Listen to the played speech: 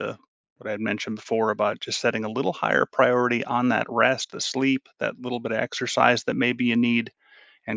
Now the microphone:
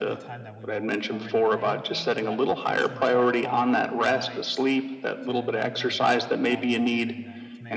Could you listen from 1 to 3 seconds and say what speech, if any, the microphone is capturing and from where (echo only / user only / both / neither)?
both